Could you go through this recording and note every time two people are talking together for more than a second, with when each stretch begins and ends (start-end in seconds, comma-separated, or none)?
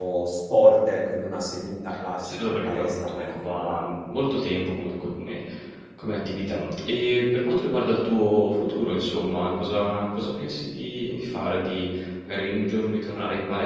2.2-3.8